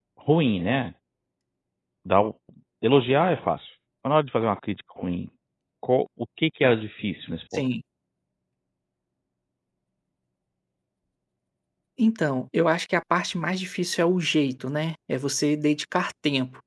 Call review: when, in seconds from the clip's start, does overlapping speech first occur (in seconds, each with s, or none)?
none